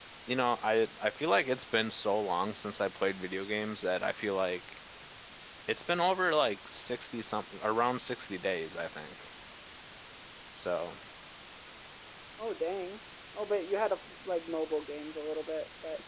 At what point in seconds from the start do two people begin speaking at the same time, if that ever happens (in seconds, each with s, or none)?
none